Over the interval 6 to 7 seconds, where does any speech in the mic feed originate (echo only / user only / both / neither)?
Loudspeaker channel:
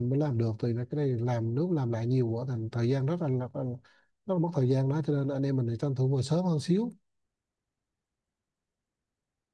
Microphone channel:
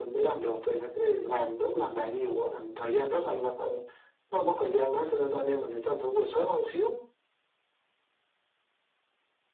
echo only